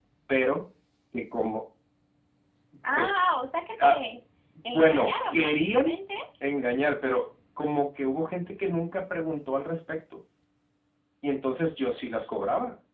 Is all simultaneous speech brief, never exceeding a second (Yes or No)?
No